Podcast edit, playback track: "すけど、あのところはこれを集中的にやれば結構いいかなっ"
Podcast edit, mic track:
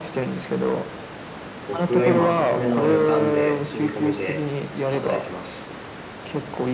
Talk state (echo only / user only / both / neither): both